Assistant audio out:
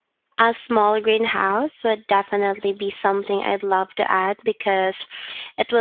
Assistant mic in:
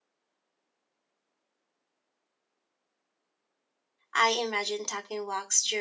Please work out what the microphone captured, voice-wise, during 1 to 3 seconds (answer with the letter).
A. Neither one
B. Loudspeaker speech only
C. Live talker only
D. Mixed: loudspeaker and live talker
A